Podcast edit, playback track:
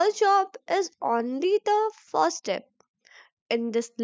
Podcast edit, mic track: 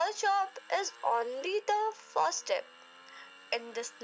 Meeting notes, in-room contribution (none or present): none